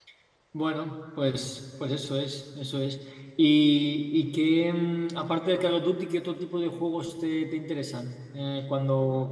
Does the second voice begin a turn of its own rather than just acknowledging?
No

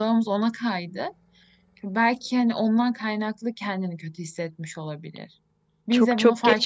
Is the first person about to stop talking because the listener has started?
Yes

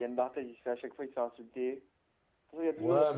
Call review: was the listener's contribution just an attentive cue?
No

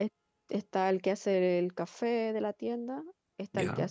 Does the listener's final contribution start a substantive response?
No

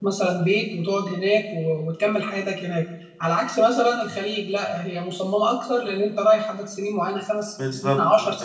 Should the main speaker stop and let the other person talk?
No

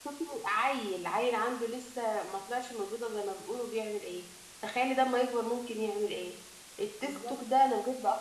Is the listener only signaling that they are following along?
Yes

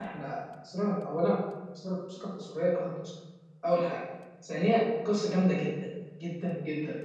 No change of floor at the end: Yes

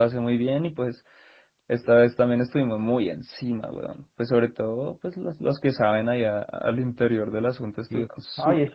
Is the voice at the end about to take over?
Yes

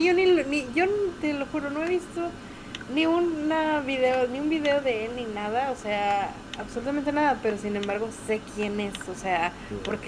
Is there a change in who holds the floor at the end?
No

